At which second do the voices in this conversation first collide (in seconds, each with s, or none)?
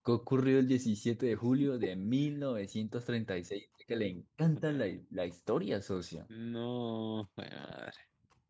none